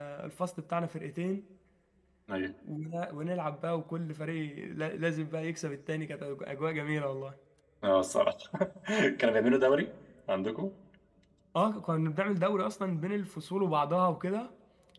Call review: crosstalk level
none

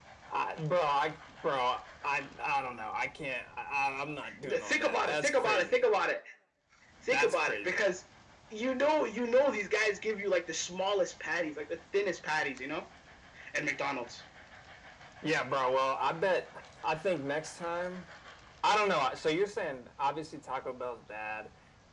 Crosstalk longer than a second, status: present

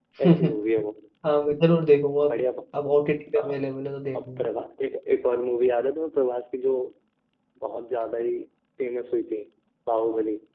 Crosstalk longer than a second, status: none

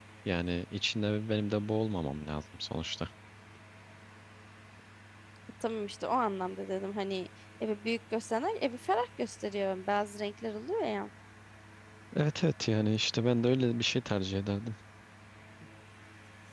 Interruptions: none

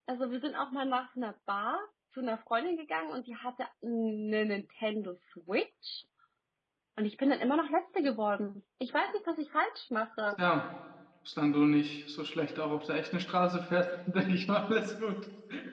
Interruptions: none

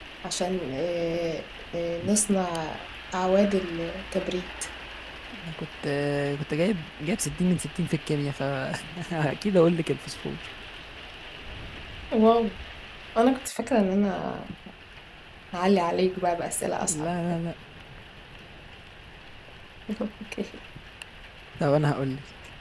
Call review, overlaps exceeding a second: none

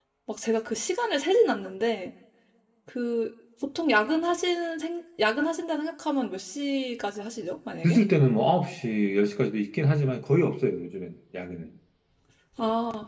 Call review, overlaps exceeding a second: none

